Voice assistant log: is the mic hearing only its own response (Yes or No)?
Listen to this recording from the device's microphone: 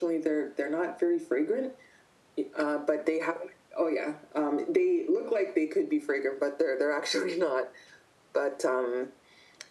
Yes